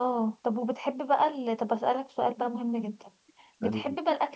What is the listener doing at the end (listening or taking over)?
listening